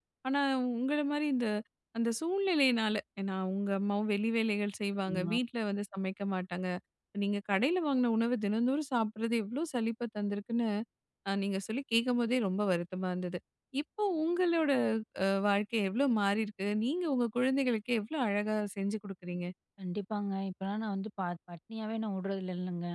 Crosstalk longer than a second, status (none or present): none